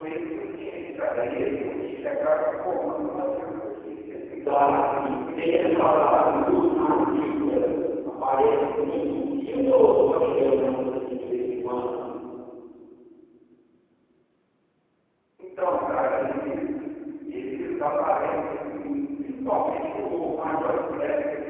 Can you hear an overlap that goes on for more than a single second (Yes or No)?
Yes